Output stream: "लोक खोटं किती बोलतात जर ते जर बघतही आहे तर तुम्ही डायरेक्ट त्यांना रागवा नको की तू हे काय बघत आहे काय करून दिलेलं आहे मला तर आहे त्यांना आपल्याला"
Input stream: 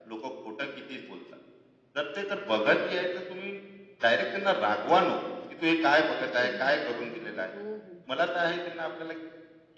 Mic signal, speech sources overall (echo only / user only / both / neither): both